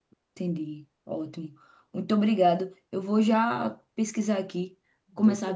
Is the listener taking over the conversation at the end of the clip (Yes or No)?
No